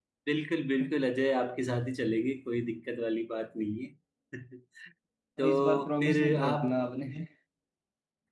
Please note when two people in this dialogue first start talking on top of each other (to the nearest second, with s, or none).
5 s